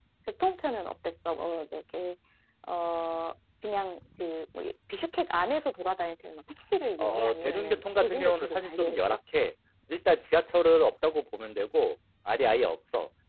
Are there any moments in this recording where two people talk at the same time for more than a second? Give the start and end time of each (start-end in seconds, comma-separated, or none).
7.0-9.0